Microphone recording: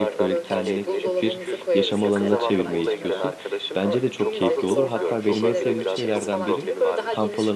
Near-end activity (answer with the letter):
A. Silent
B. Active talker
B